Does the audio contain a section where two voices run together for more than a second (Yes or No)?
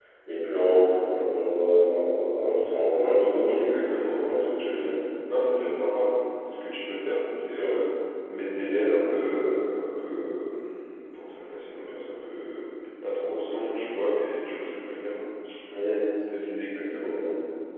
Yes